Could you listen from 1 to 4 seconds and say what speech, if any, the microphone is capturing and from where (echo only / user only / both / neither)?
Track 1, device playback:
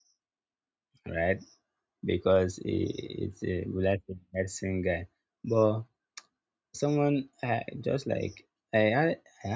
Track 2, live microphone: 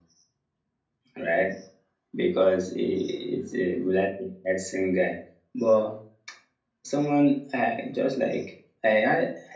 echo only